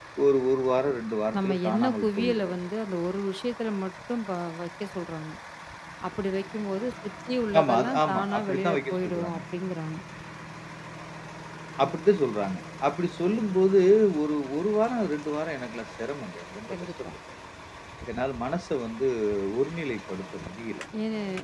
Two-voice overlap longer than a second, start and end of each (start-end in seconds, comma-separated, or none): 1.4-2.6, 7.6-9.4